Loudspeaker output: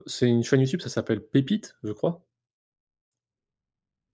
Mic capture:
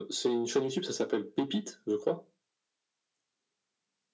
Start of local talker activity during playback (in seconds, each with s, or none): none